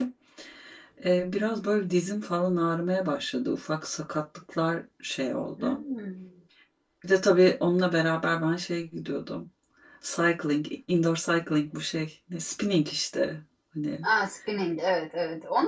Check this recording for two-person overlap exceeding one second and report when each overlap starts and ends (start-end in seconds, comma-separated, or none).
none